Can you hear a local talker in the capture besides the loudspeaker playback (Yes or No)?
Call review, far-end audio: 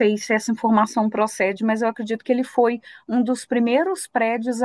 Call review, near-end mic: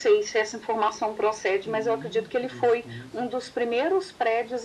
Yes